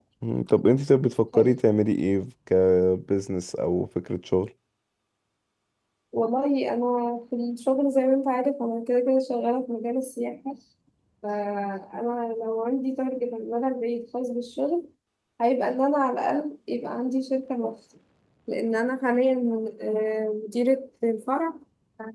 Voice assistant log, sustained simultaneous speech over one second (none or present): none